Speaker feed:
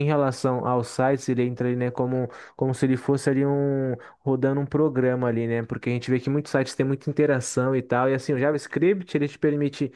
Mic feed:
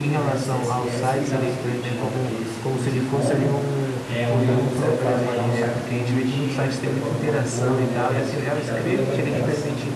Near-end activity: present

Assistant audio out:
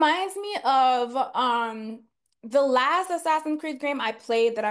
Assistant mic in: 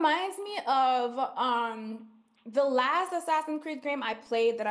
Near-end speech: none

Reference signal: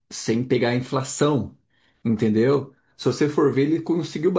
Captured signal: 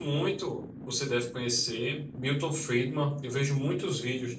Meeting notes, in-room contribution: present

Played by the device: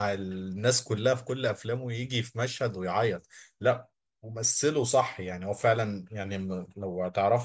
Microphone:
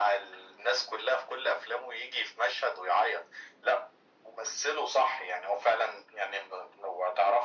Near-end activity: none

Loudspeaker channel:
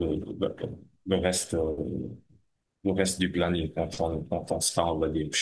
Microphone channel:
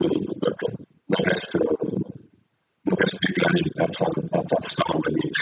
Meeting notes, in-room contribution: none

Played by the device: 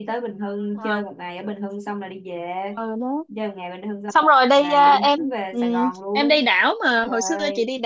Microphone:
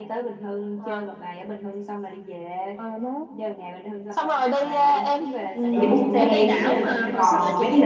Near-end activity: present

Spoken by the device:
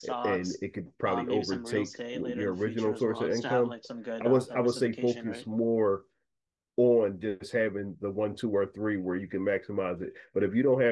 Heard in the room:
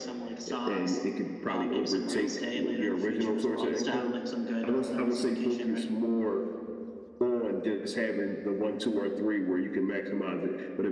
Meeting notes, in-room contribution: none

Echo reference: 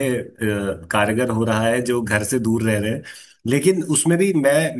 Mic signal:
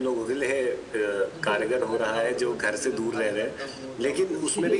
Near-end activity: present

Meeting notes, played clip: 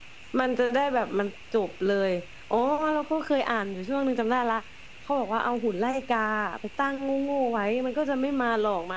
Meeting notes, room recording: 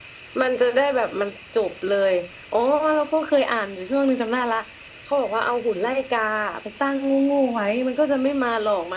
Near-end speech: none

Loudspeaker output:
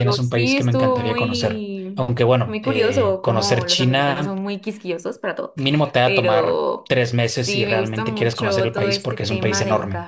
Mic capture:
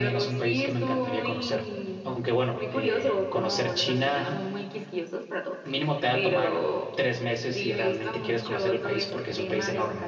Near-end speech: none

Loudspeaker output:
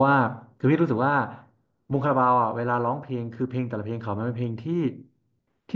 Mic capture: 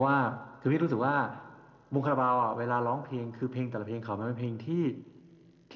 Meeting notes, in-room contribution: none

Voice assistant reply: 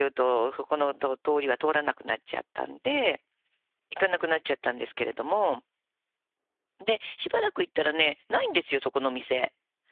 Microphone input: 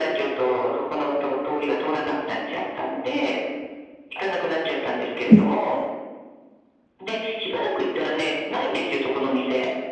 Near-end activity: present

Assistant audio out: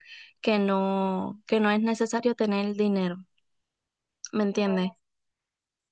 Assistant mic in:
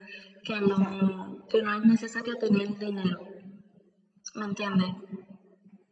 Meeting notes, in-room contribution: present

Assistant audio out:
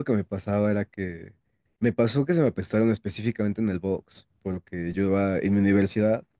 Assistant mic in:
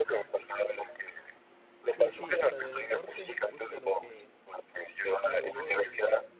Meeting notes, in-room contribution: present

